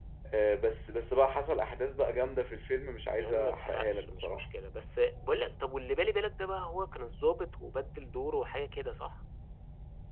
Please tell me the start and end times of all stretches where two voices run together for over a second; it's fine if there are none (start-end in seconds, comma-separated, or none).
3.2-4.5